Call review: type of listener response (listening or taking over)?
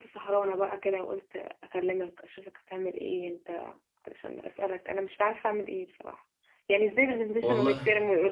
listening